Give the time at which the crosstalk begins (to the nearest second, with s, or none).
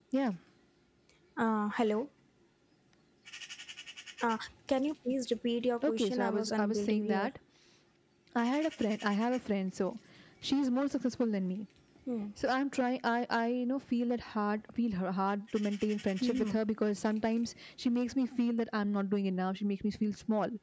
6 s